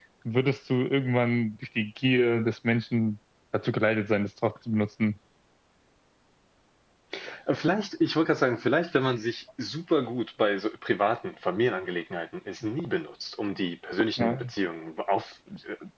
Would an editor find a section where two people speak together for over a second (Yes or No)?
No